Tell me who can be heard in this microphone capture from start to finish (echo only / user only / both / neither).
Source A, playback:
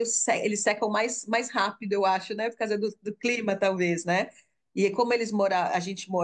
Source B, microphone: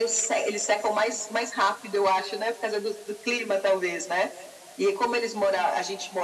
echo only